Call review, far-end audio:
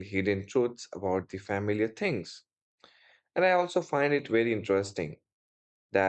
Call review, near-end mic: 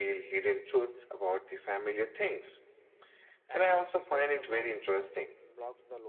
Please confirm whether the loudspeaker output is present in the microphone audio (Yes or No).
Yes